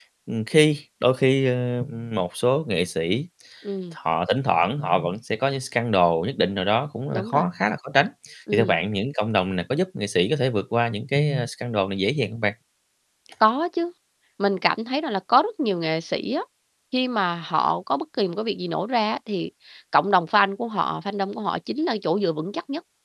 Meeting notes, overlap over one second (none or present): none